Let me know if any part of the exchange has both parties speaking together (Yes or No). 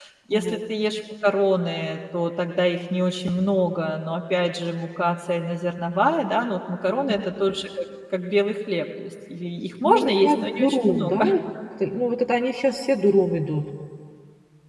Yes